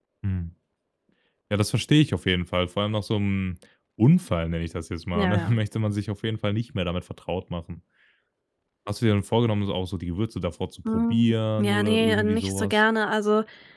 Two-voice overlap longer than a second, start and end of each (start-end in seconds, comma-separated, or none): 10.9-12.7